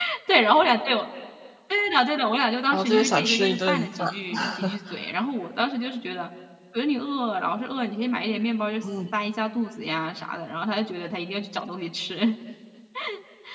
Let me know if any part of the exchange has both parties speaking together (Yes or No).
Yes